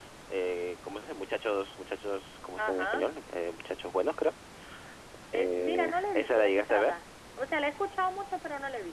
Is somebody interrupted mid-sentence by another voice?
Yes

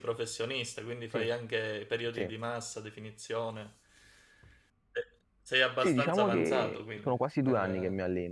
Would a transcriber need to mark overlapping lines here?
Yes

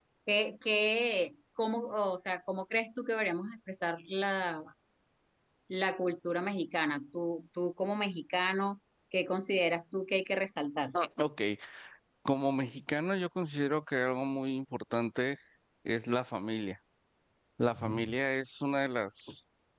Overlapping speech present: No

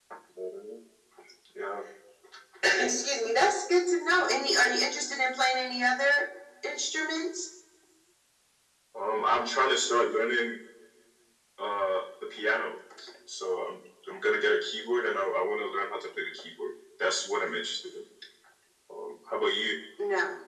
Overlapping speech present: No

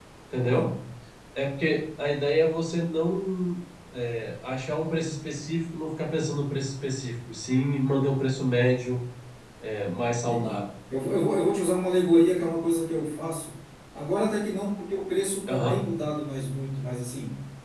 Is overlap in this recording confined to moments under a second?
Yes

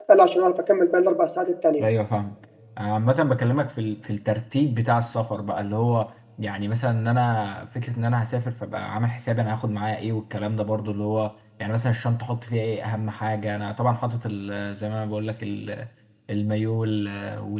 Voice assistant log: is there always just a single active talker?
Yes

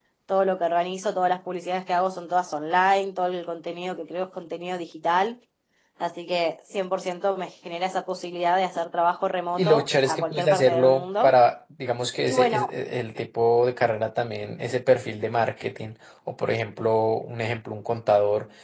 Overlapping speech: Yes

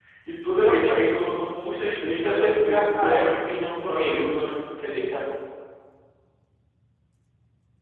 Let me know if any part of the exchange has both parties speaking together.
Yes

